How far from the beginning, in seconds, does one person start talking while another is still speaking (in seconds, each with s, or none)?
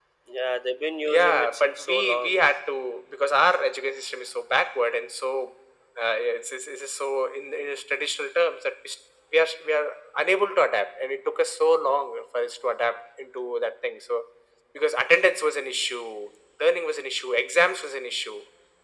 1.0 s